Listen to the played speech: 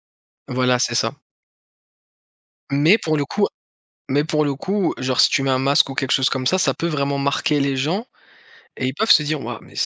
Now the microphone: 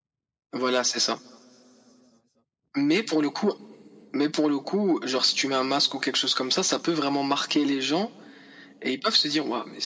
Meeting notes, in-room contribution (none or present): none